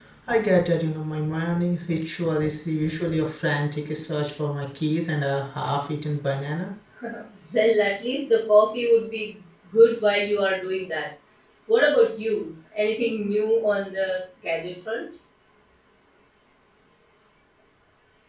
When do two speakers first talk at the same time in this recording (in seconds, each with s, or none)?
none